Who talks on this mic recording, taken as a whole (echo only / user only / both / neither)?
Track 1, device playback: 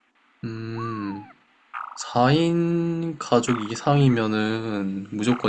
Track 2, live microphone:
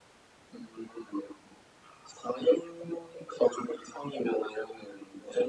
echo only